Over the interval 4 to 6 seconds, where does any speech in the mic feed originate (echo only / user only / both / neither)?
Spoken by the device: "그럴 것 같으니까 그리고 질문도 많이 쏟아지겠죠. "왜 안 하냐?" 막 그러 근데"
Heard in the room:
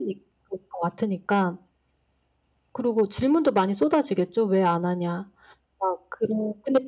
echo only